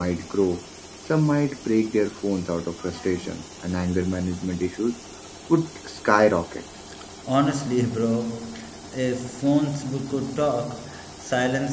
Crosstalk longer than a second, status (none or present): none